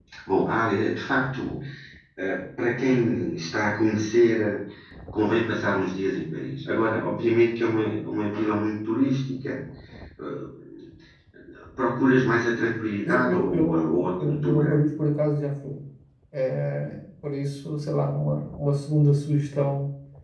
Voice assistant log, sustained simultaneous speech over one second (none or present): present